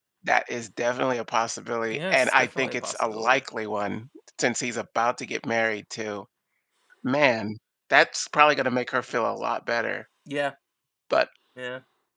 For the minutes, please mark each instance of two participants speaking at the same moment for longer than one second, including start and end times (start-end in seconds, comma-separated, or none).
1.9-3.4